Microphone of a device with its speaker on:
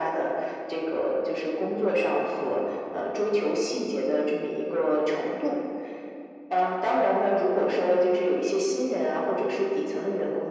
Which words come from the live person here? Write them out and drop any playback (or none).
none